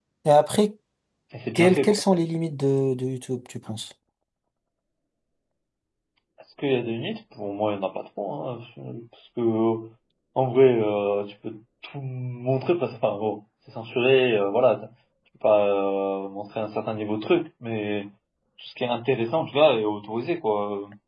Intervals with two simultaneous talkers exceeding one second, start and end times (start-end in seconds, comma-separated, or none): none